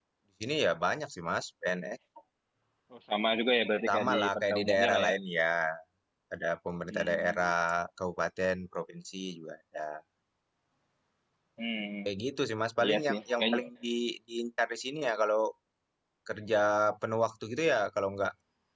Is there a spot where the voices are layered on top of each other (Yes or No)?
Yes